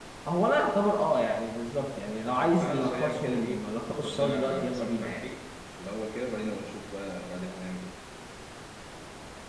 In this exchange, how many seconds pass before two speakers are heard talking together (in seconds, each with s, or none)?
2.6 s